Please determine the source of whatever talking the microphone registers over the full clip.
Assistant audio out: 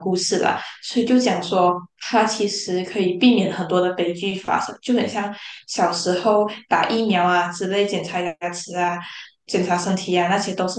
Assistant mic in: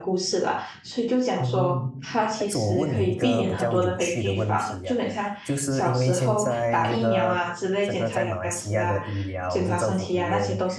both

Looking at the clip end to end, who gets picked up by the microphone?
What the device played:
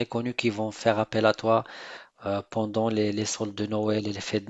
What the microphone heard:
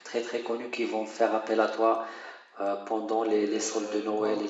both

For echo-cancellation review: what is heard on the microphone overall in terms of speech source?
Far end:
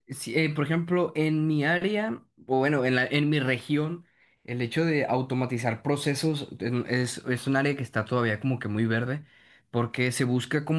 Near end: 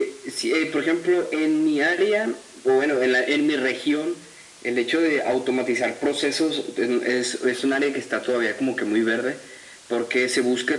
echo only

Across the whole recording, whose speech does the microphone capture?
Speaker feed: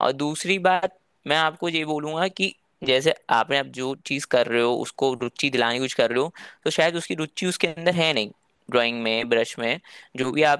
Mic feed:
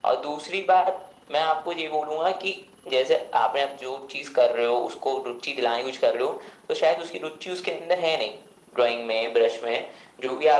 echo only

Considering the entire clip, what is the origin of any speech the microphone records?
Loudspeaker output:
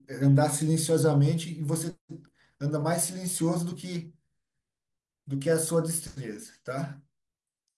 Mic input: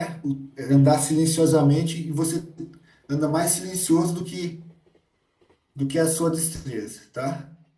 echo only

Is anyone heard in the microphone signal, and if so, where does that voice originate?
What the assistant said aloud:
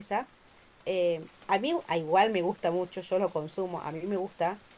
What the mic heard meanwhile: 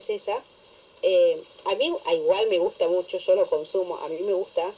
echo only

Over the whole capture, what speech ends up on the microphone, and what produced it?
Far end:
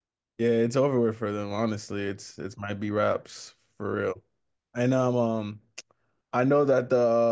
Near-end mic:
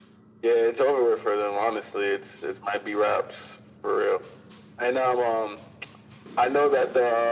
echo only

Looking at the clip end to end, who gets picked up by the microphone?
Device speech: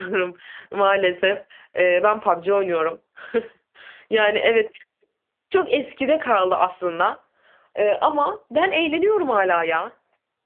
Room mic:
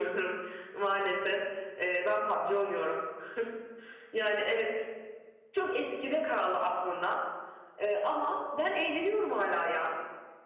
echo only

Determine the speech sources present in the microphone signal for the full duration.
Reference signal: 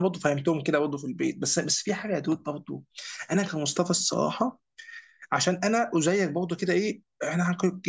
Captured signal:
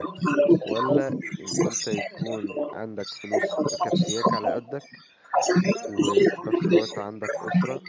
both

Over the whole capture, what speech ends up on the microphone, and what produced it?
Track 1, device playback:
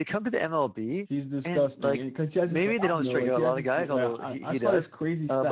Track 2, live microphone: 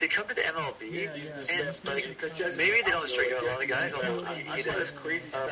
both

